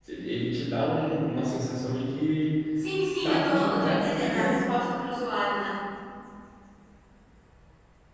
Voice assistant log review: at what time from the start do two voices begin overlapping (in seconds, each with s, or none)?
3.2 s